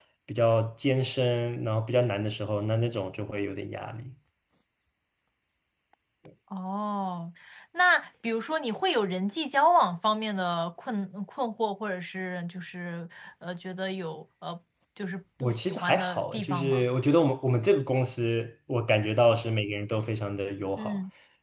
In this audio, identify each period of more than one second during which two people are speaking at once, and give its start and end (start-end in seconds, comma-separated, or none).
15.4-16.8